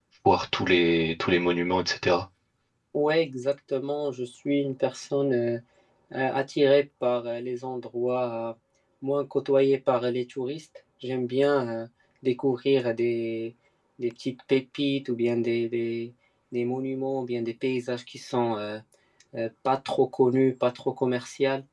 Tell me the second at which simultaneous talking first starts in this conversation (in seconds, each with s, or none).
none